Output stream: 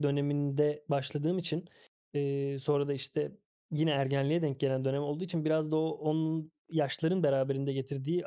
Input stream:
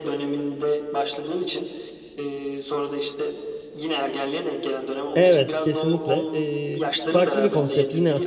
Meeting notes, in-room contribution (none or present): present